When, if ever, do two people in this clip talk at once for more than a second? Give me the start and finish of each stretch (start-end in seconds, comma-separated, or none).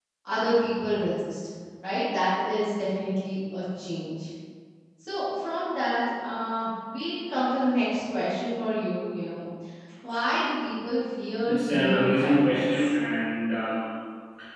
11.5-12.8